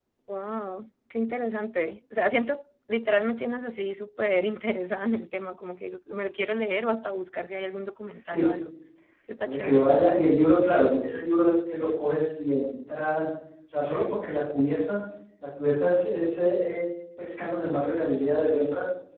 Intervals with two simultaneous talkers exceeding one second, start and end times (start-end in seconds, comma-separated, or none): none